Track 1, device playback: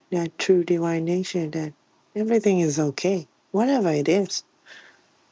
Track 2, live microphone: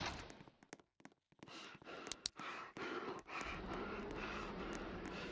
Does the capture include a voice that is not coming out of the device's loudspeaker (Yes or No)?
No